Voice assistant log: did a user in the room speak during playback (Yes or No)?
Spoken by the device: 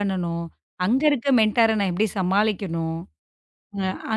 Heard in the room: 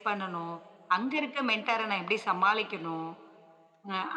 No